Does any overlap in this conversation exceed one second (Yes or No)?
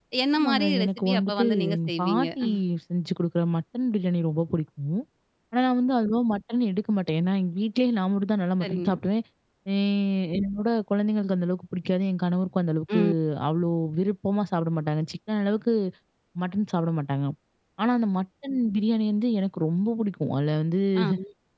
Yes